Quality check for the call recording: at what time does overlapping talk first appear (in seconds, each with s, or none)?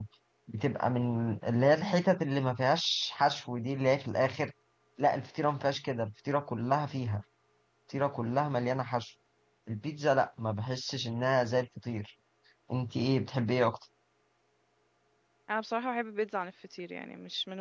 none